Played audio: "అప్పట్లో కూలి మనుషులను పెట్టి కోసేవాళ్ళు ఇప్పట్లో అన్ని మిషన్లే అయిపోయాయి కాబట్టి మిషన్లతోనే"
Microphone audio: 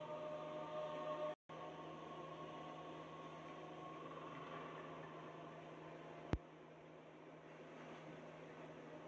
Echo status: none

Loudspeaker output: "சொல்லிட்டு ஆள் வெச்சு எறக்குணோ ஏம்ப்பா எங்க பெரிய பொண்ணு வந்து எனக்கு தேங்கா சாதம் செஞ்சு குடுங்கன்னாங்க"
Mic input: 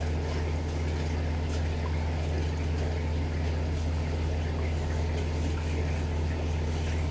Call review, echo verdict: none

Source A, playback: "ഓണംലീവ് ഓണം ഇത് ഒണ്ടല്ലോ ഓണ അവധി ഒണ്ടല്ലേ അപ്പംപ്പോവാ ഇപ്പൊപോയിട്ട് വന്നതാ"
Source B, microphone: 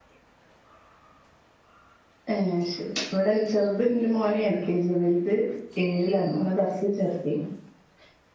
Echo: none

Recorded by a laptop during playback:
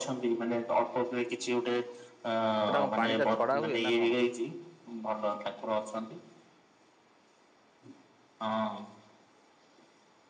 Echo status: present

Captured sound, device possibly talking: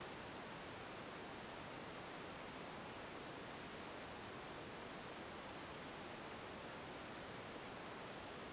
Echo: none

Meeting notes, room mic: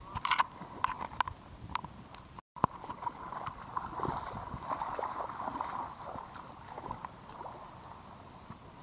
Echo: none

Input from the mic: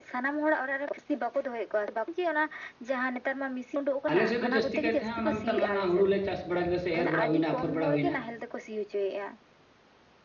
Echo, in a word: present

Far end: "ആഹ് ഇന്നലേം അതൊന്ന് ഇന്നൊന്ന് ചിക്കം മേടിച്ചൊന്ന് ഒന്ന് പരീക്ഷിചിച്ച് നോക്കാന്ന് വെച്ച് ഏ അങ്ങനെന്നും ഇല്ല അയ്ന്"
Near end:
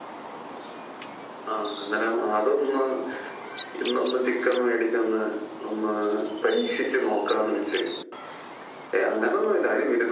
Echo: present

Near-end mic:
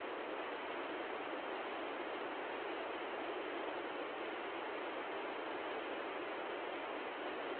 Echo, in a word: none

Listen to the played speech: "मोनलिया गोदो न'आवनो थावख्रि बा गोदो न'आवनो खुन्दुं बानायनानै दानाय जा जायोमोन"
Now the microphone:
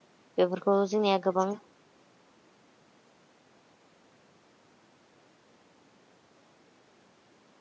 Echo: none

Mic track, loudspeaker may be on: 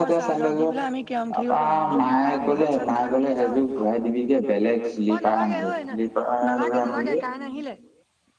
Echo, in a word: present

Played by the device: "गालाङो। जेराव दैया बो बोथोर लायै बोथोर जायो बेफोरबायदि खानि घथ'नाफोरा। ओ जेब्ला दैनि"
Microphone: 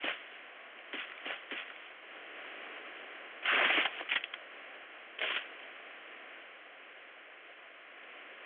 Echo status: none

